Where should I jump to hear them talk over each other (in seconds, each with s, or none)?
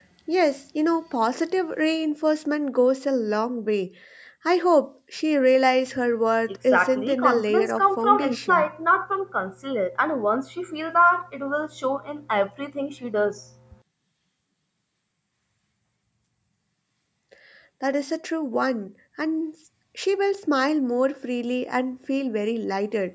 6.7 s